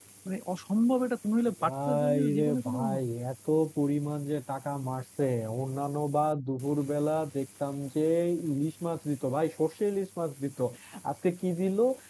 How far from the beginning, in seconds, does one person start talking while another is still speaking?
1.6 s

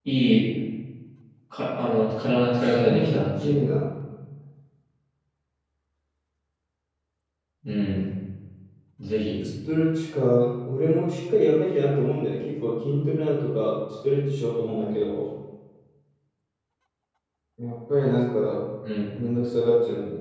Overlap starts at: 2.3 s

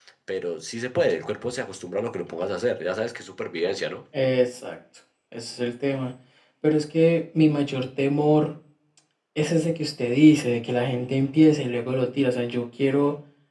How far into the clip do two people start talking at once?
none

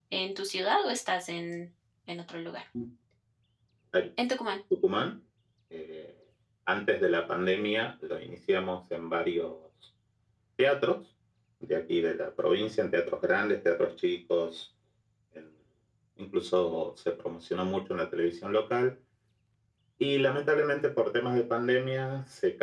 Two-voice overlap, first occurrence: none

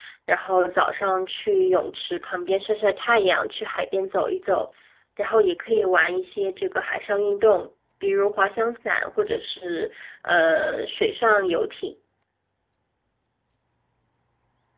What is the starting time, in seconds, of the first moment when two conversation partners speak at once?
none

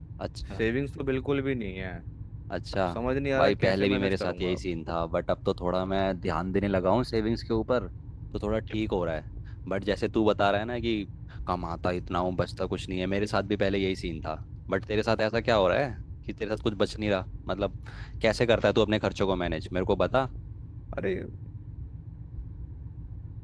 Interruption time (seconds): 3.4 s

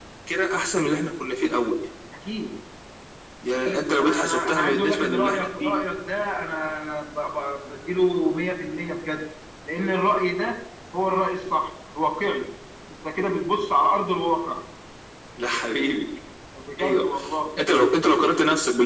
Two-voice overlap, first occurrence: 3.5 s

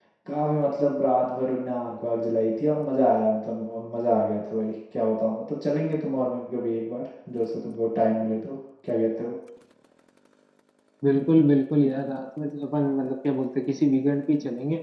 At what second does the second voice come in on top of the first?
none

